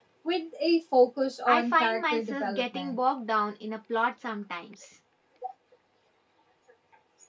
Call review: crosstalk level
present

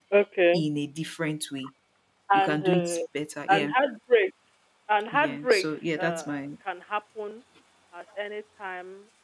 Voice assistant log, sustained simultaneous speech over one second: present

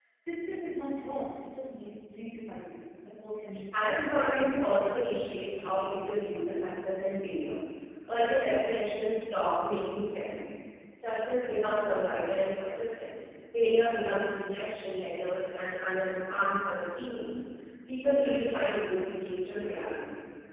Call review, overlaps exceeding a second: present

